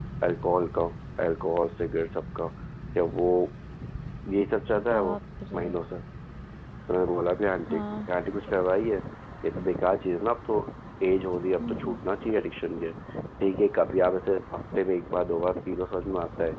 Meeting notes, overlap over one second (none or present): none